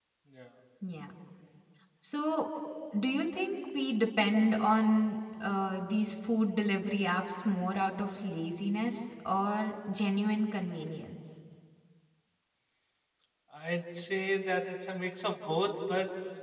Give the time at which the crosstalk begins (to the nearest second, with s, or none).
none